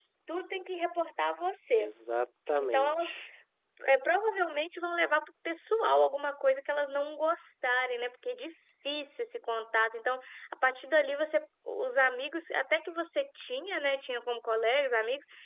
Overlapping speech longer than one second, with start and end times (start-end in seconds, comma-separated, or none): none